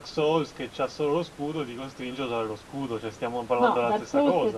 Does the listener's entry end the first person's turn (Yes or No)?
Yes